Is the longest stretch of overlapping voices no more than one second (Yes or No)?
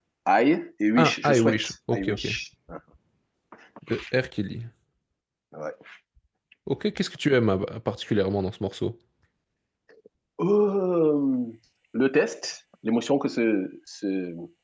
No